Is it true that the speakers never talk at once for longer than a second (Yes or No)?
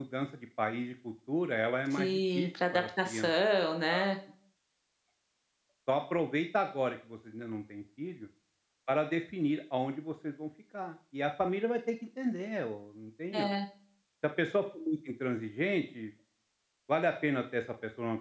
No